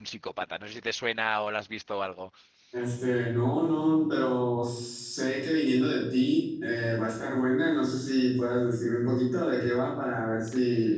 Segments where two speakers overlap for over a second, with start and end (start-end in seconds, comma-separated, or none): none